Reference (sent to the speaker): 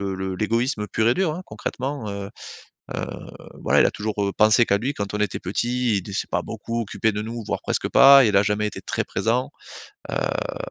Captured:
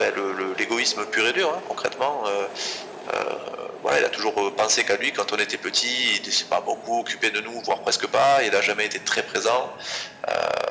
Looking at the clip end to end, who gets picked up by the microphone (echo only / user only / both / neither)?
echo only